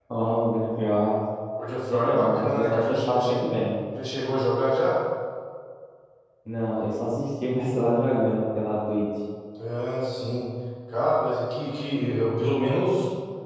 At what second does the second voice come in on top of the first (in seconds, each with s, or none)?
1.9 s